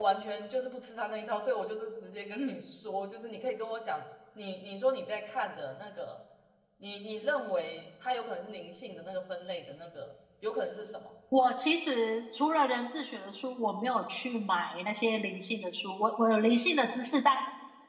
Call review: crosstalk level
none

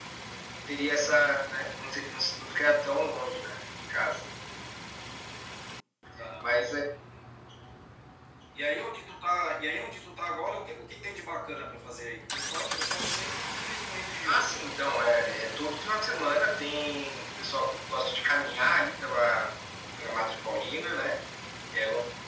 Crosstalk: present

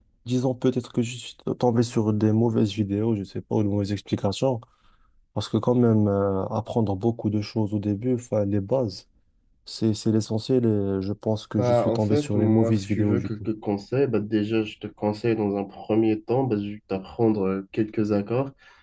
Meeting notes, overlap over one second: present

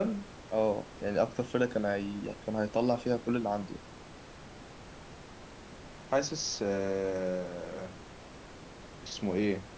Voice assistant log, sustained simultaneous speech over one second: none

